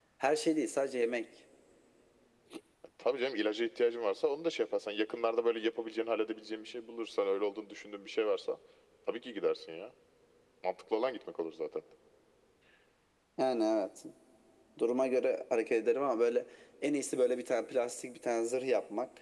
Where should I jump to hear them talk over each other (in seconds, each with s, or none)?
none